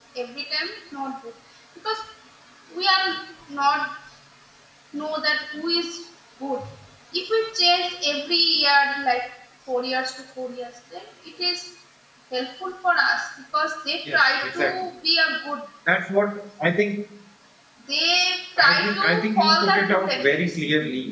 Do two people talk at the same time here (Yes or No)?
Yes